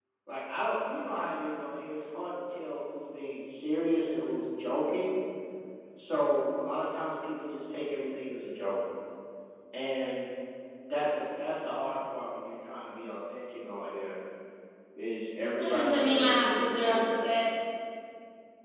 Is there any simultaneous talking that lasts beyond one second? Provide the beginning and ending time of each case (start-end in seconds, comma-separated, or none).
15.6-17.1